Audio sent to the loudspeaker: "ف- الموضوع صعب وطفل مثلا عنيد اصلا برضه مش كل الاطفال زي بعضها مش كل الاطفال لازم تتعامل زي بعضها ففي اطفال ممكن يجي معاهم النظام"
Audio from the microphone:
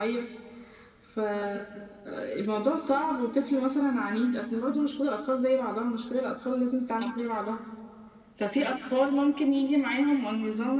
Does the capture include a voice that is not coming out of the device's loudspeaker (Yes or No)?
No